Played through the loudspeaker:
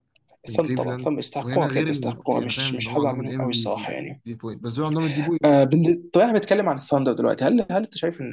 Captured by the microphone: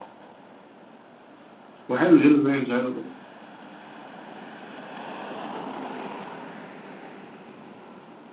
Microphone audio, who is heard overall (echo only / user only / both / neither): user only